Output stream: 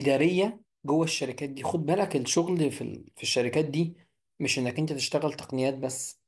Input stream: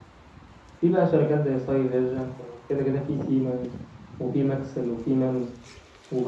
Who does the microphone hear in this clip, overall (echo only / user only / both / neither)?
user only